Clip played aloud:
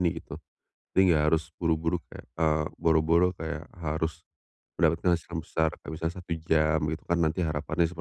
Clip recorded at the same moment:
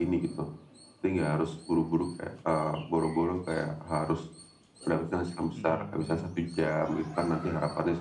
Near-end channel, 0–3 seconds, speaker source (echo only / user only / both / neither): echo only